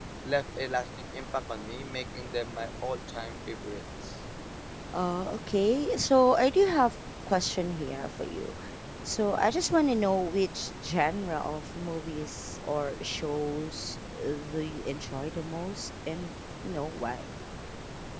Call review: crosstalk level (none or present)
none